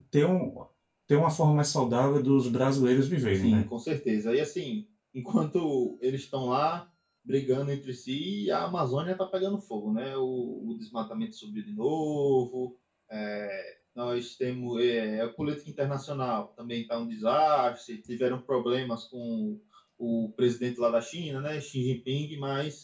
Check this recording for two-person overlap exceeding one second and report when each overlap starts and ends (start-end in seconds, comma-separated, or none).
none